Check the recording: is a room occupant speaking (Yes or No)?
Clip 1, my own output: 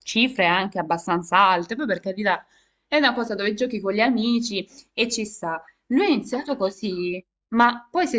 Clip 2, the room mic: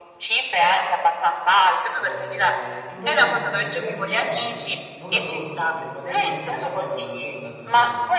Yes